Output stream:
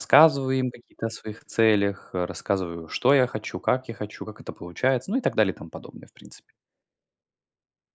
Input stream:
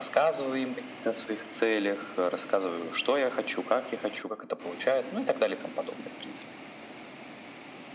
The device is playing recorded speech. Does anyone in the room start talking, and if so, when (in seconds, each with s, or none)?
none